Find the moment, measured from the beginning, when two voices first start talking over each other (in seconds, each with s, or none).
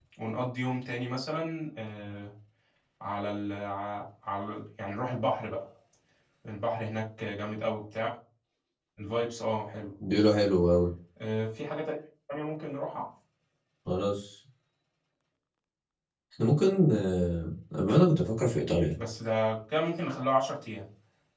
none